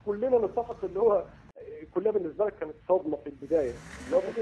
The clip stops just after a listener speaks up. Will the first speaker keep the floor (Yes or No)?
Yes